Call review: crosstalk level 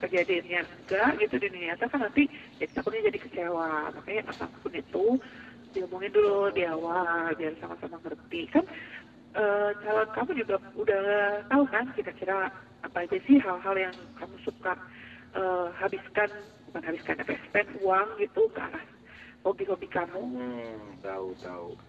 present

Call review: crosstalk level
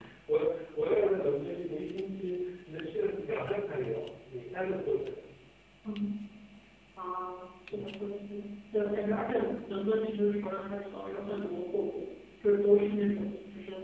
none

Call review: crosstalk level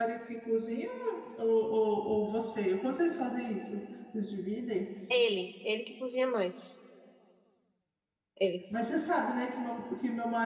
none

